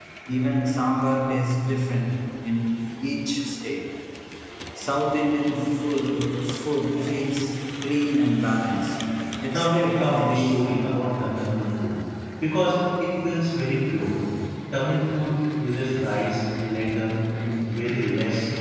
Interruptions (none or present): present